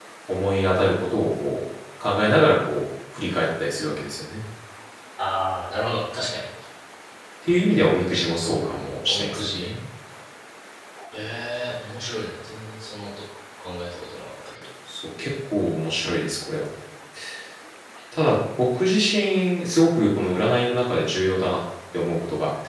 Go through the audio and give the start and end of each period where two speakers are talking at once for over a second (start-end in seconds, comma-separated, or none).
8.1-9.7